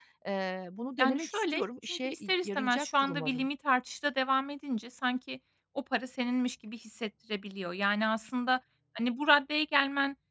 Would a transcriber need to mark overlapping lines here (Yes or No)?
Yes